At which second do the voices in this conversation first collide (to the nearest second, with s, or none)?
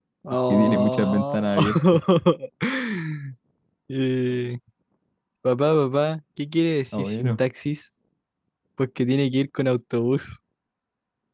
1 s